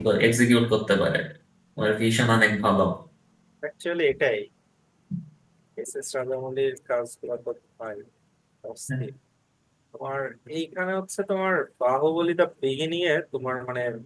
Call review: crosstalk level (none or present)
none